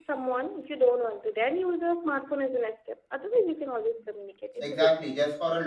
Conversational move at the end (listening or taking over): taking over